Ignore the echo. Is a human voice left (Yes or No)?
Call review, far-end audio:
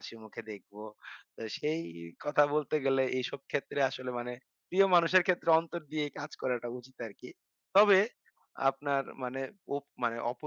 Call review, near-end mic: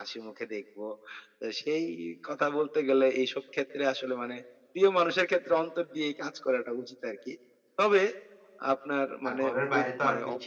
Yes